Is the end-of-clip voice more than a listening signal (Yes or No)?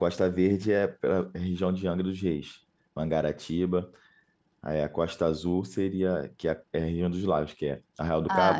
No